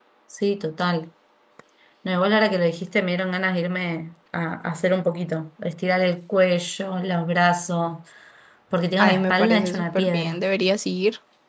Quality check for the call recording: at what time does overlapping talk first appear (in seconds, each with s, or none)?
9.0 s